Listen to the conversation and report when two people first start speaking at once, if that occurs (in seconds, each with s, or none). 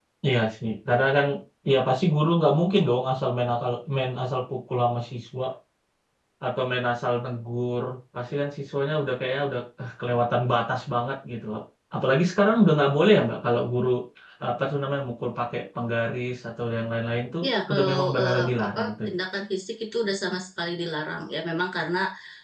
17.7 s